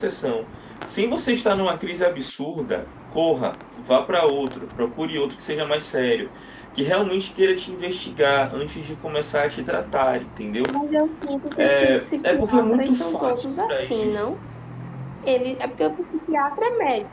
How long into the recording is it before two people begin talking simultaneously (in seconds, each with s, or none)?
11.6 s